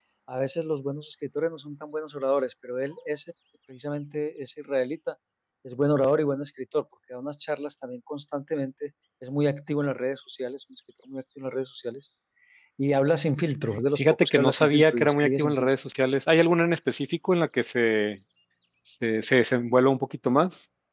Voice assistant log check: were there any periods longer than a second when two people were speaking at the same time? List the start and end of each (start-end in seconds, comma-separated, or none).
13.9-15.7